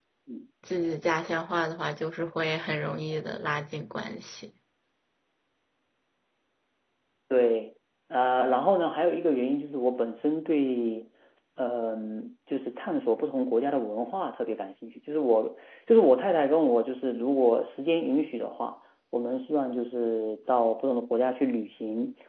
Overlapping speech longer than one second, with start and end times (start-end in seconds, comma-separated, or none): none